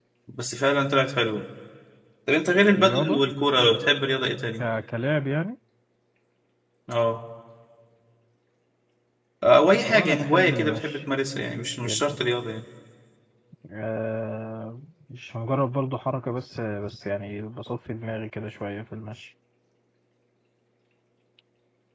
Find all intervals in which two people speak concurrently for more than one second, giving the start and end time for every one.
9.8-11.0

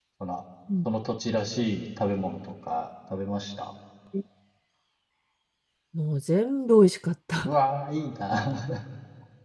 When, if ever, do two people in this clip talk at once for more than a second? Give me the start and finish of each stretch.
none

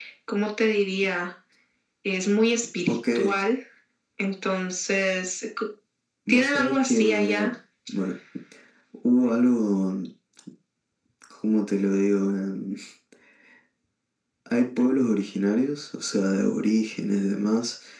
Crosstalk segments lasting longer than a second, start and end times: 6.3-7.5

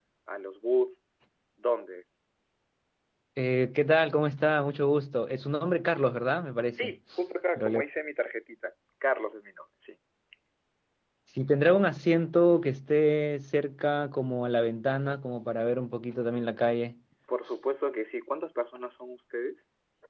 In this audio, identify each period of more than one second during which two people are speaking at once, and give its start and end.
none

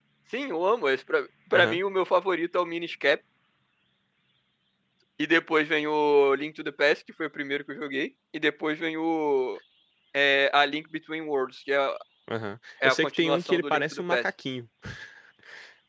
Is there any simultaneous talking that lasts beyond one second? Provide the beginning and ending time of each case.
12.8-14.2

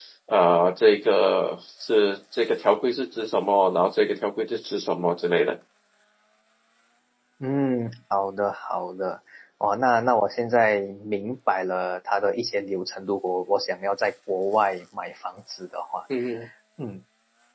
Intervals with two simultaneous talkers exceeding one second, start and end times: none

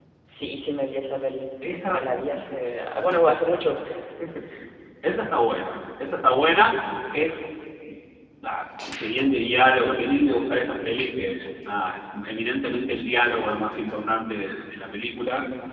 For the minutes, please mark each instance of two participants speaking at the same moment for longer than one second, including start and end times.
none

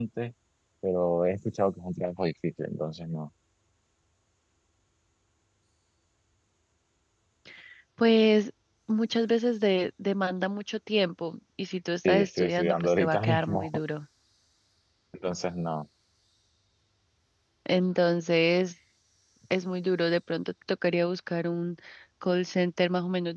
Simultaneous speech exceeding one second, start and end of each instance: 12.1-13.7

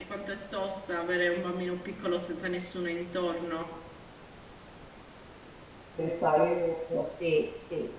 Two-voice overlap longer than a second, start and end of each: none

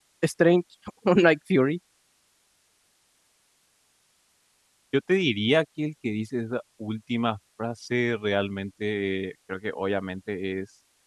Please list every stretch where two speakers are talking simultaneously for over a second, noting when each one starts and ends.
none

